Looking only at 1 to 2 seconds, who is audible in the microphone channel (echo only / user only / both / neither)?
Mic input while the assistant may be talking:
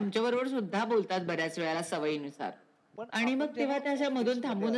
echo only